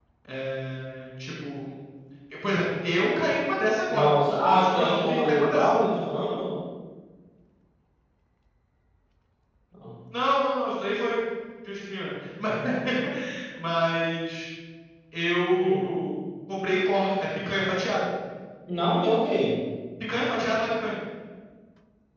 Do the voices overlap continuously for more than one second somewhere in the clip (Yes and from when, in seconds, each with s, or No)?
Yes, from 3.9 s